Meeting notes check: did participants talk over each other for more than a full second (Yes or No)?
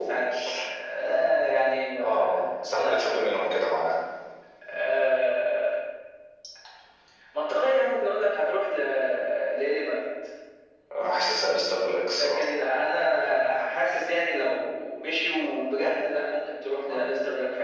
Yes